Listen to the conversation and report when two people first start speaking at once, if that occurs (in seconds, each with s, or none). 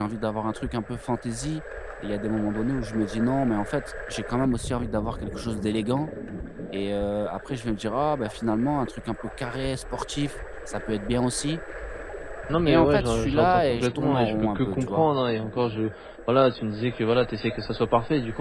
12.7 s